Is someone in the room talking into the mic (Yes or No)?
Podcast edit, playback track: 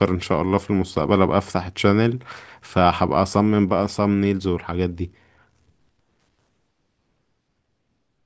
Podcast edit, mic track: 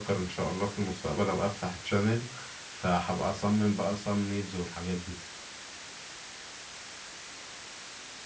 No